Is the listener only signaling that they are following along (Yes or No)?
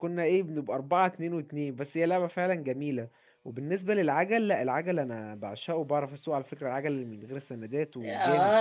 No